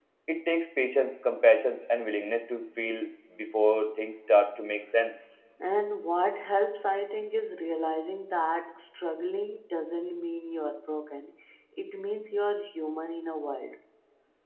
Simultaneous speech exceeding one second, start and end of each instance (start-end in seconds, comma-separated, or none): none